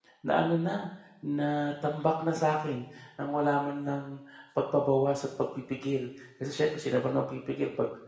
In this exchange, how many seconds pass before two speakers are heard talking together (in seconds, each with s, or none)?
none